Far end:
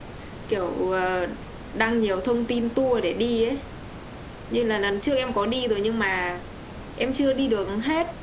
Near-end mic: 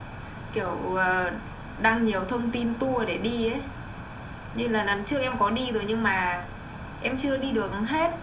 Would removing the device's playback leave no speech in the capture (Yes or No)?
Yes